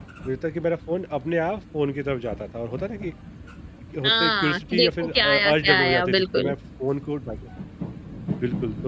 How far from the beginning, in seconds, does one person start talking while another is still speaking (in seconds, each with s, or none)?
4.0 s